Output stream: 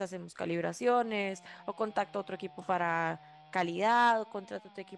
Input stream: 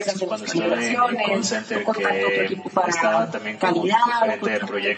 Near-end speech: present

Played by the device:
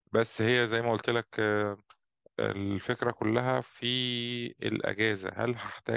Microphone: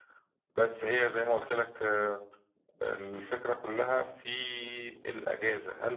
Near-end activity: none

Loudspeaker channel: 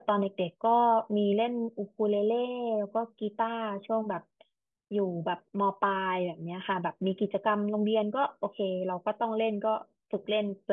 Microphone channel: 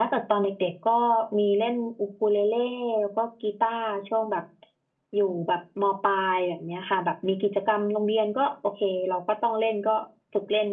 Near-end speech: none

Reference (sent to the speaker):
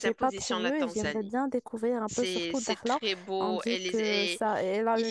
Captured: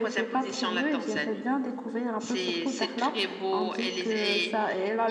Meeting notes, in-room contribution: none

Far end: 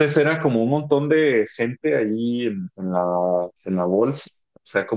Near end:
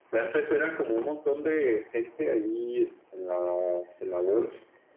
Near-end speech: none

